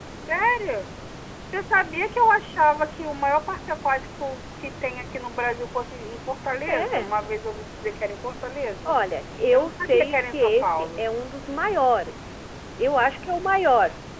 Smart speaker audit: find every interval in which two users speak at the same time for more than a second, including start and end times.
9.5-11.0

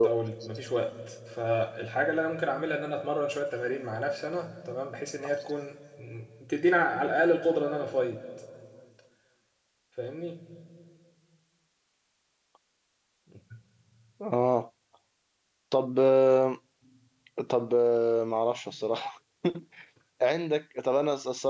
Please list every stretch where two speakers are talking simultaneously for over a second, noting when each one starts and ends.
none

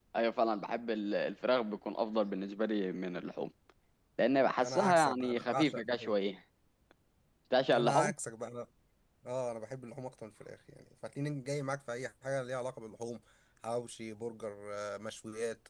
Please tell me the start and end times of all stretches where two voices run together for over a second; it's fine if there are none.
4.6-6.1

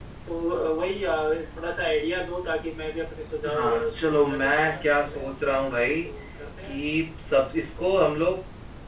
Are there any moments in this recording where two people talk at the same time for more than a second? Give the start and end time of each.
3.6-5.2

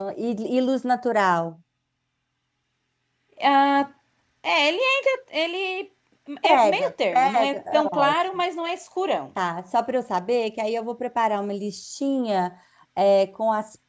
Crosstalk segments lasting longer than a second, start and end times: 6.4-8.2

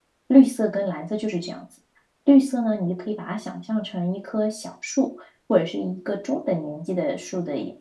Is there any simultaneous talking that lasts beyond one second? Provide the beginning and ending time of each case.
none

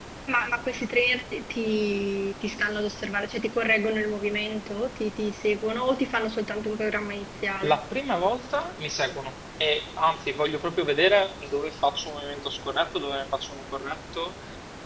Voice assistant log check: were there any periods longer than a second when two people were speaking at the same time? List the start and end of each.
none

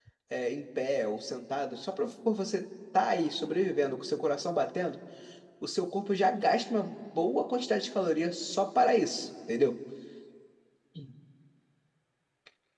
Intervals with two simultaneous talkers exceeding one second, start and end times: none

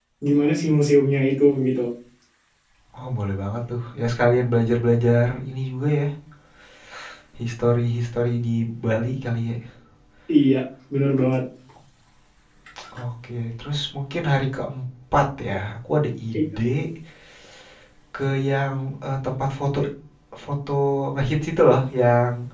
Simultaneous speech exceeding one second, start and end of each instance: none

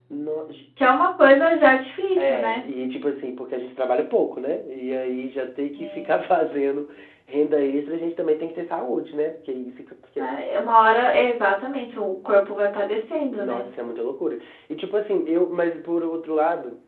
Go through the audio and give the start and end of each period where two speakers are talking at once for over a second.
none

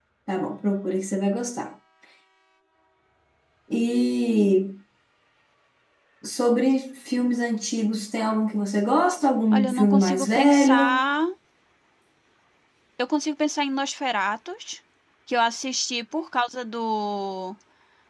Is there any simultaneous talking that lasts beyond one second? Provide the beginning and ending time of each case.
9.5-11.1

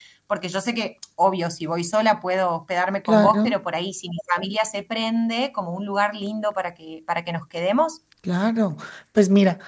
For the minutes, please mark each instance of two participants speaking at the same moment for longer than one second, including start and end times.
none

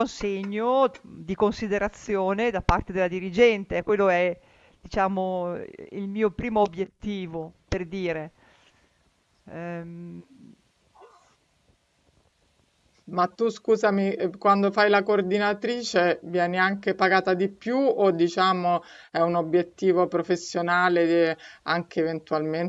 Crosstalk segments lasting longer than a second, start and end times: none

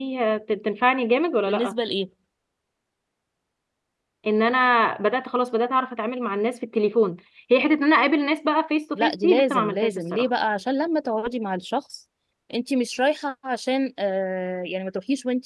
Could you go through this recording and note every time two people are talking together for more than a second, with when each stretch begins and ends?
9.0-10.2

